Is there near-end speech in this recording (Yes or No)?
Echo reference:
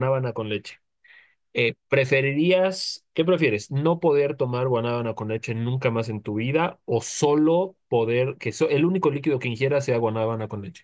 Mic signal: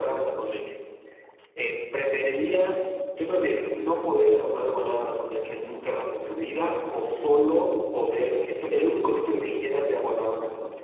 No